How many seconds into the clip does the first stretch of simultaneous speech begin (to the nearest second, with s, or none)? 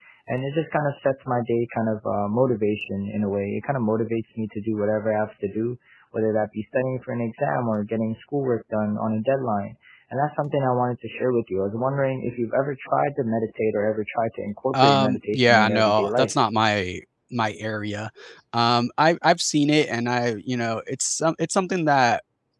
15 s